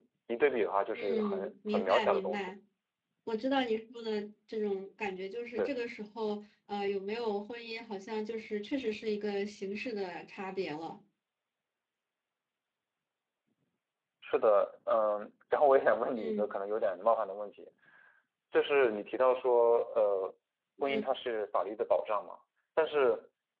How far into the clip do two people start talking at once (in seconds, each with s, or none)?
0.9 s